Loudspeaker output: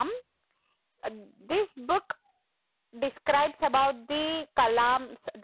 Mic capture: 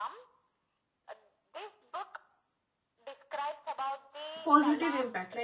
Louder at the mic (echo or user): user